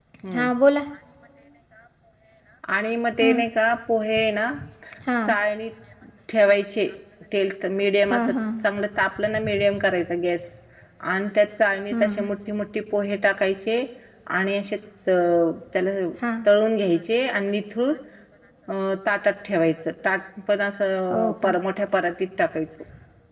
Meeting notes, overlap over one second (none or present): none